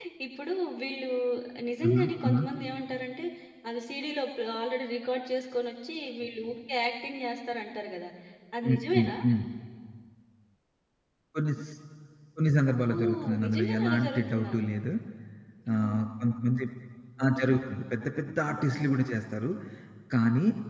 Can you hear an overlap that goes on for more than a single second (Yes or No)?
Yes